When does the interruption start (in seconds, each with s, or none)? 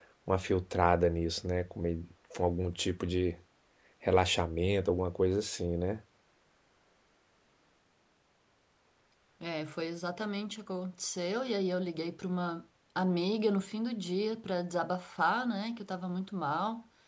none